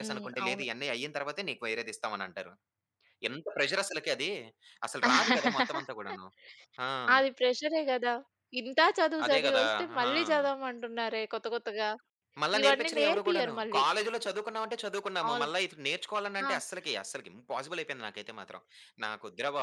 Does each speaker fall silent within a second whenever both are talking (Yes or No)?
No